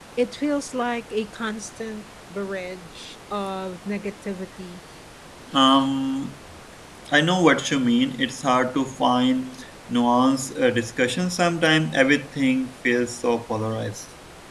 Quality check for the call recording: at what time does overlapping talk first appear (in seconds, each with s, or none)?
none